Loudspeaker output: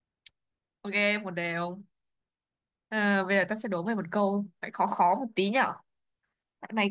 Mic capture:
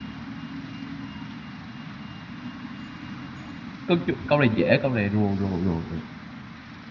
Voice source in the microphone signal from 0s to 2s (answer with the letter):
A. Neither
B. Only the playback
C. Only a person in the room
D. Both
A